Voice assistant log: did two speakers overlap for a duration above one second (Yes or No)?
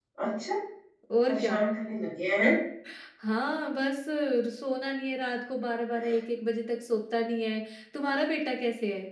No